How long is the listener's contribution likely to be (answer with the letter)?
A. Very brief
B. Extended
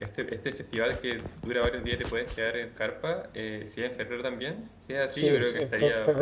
B